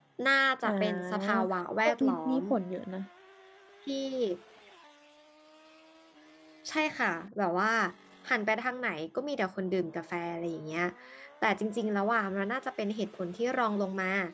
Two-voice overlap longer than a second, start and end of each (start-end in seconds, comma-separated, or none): 0.6-2.4